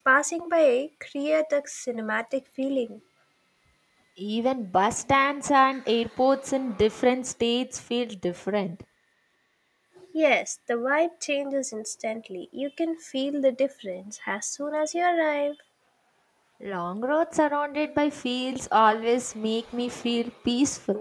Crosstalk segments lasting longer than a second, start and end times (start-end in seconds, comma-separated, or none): none